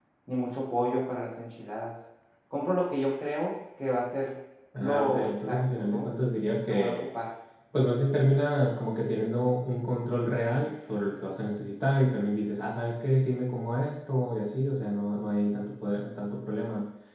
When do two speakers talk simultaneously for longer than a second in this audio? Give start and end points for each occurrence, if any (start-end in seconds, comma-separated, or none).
4.8-6.1